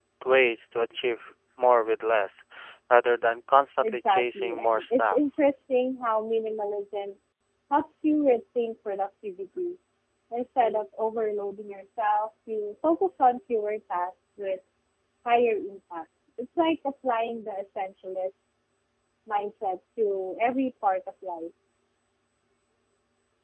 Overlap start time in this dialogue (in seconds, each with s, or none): 3.8 s